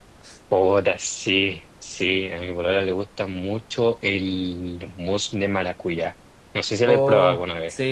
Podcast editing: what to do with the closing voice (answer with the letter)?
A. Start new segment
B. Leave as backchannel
A